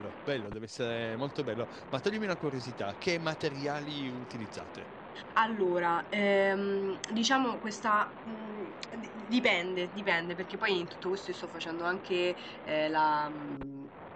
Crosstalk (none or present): none